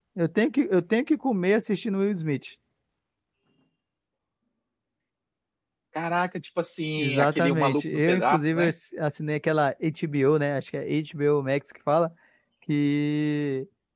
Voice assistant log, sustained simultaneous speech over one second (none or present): present